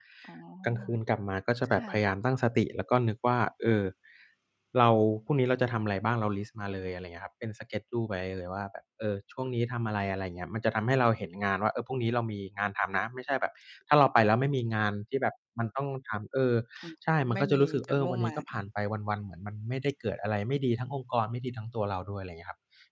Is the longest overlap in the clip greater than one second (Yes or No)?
Yes